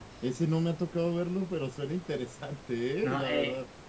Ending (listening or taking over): taking over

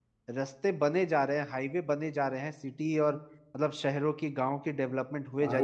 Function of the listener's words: taking over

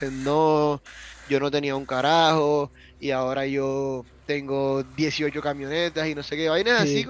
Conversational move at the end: listening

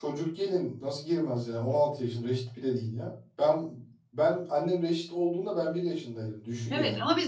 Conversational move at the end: taking over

